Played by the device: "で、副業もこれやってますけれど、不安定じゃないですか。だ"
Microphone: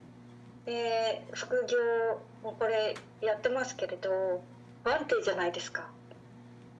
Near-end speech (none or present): none